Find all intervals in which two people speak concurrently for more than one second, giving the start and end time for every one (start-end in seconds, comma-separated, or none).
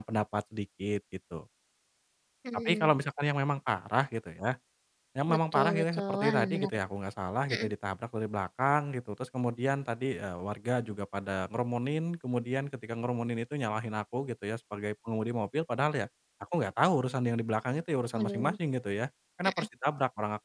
5.3-6.8